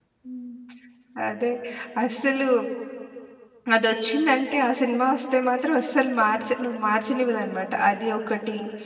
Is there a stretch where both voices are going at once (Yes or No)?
No